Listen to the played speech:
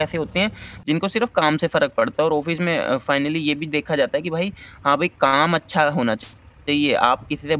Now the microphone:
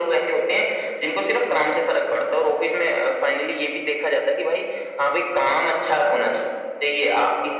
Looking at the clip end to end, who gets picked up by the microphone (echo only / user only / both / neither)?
echo only